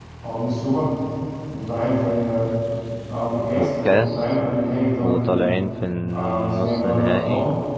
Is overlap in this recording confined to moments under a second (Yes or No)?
No